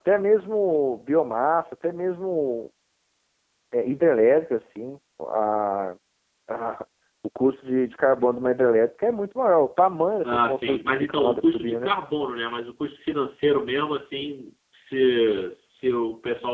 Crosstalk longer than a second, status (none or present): present